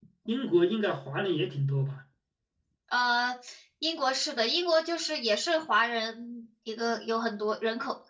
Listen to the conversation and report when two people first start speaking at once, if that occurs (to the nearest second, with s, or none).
none